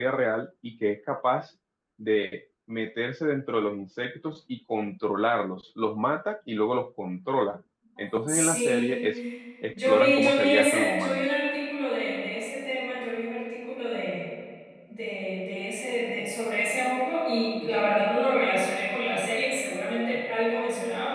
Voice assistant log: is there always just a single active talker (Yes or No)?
No